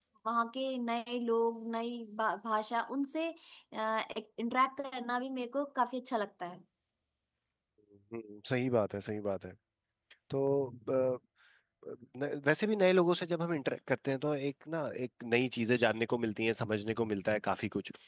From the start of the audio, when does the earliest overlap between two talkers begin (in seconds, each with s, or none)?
none